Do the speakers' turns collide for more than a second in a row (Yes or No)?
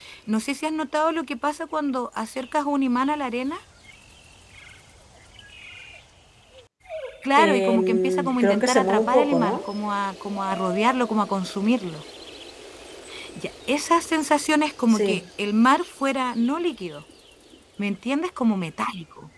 Yes